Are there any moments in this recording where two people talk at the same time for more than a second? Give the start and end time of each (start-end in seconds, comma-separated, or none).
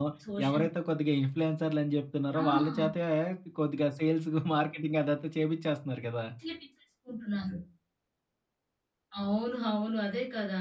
none